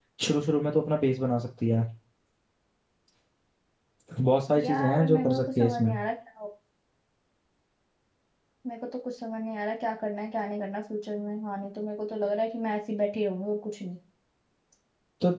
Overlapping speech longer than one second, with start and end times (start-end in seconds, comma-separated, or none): 4.6-5.9